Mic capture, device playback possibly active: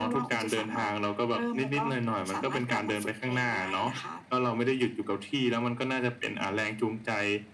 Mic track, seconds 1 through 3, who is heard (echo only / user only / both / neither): echo only